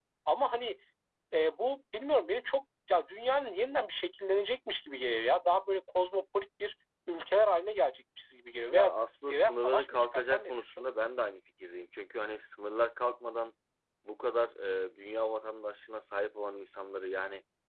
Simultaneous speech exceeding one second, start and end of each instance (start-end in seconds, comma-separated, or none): 9.3-10.8